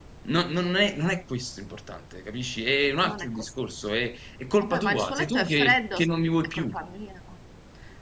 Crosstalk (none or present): present